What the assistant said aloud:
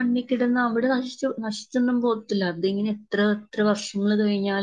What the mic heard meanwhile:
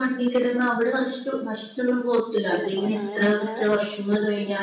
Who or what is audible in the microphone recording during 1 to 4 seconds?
both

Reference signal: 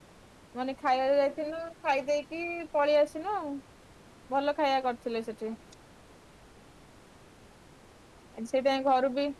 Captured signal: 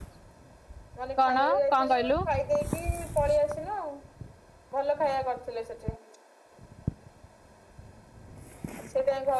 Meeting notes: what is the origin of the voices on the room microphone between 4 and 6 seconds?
echo only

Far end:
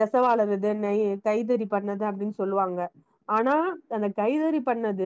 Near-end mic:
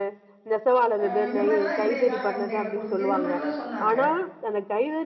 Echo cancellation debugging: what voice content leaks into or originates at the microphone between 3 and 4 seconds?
both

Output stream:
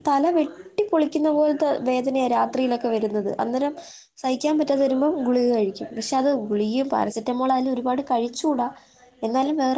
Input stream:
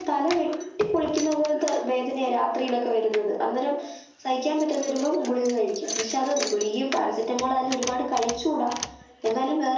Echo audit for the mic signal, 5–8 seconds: echo only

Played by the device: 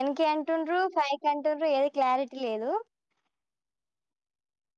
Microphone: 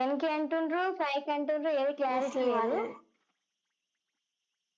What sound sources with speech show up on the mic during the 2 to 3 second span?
both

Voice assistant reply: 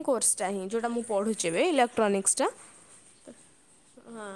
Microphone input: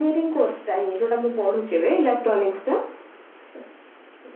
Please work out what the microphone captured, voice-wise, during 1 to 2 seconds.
echo only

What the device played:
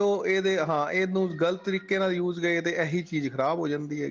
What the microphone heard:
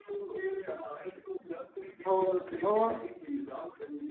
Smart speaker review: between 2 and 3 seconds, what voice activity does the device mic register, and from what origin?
both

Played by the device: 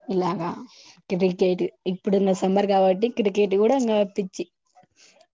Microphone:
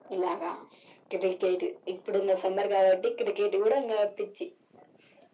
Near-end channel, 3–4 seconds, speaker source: echo only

